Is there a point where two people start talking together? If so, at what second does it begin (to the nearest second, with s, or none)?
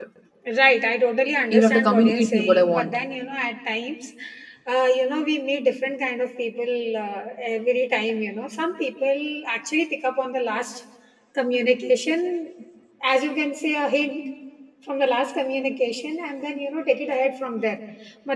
2 s